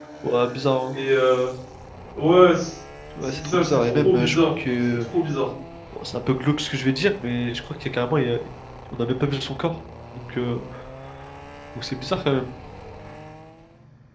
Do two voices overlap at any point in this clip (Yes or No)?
Yes